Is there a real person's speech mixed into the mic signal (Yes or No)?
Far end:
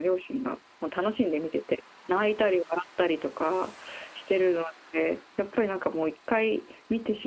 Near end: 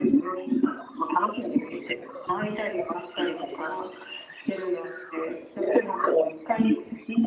No